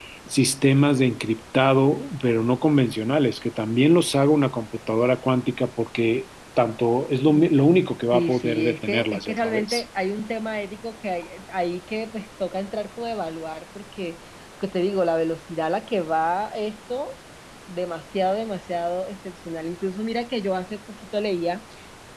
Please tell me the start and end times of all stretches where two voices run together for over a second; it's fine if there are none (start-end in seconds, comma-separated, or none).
8.1-9.8